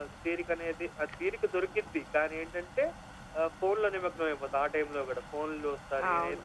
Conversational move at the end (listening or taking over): taking over